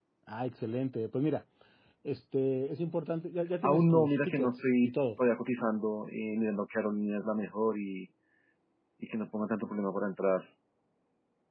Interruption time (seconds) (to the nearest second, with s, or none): 4 s